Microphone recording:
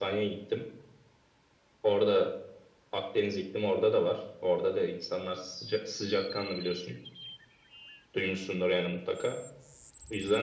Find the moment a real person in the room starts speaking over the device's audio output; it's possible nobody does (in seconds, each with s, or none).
none